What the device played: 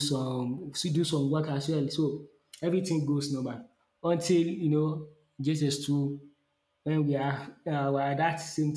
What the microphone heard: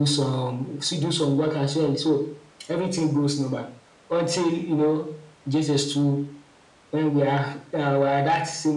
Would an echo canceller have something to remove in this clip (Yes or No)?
Yes